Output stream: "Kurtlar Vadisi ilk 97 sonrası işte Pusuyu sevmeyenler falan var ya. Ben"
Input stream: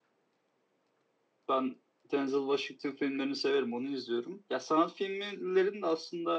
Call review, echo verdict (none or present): none